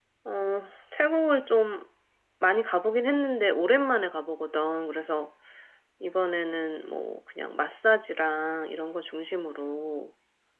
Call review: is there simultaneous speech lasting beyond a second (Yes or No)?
No